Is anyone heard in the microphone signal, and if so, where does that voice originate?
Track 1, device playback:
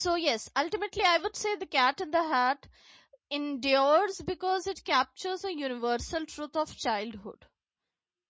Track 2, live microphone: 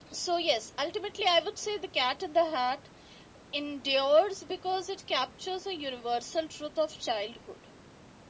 echo only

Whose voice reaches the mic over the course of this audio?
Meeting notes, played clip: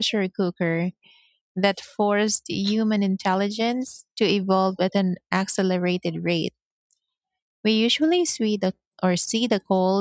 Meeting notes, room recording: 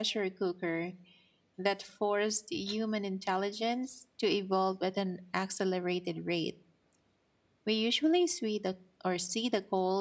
echo only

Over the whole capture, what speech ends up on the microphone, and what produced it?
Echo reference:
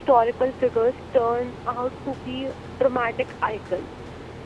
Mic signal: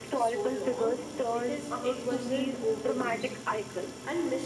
both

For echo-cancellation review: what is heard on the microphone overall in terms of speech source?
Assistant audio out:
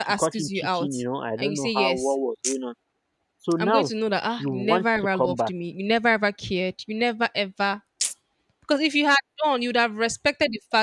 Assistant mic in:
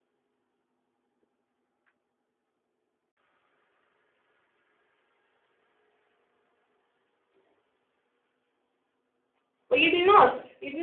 user only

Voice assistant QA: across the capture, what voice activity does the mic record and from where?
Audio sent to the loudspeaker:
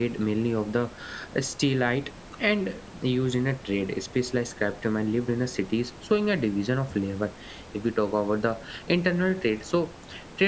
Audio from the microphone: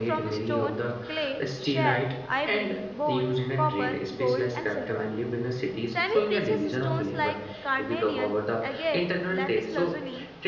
both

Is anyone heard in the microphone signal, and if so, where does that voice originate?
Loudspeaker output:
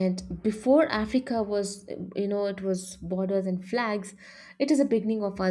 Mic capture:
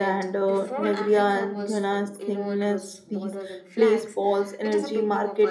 both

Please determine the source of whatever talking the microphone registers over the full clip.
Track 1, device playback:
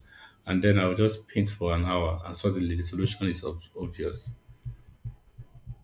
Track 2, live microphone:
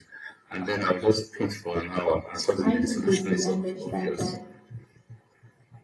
both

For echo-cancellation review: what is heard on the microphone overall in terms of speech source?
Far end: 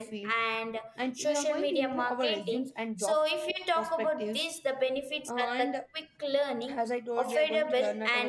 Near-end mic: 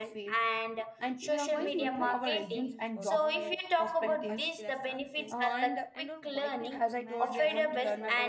both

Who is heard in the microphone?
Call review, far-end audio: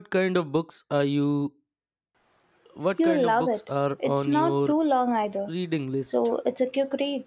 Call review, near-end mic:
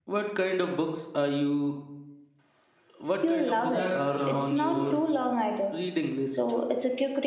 both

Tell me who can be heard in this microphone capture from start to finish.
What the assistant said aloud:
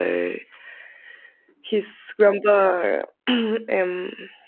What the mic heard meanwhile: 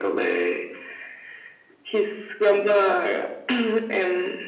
echo only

